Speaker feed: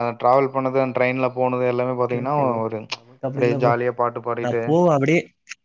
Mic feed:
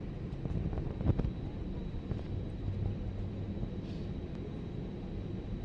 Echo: none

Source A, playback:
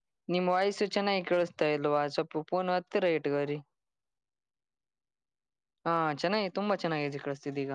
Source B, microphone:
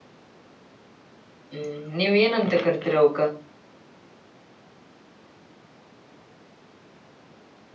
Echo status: none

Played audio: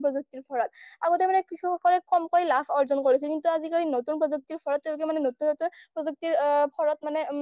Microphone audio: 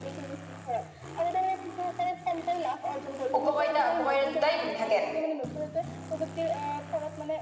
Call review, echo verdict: present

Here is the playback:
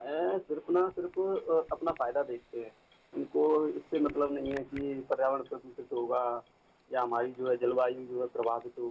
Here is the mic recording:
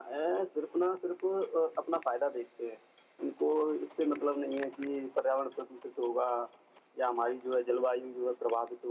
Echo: present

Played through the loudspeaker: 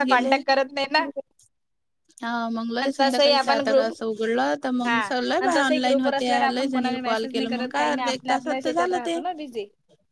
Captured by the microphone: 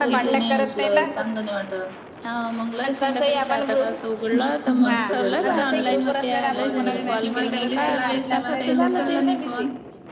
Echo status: present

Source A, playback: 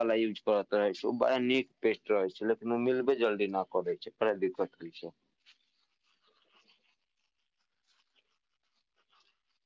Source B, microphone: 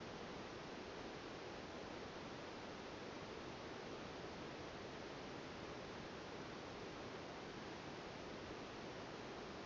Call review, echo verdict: none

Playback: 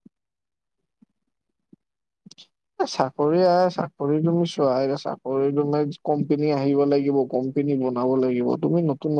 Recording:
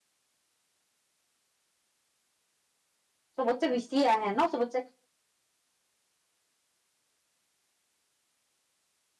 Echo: none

